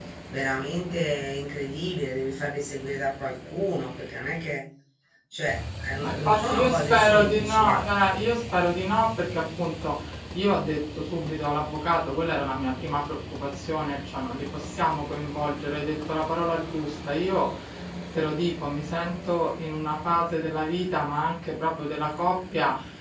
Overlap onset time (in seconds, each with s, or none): 6.0 s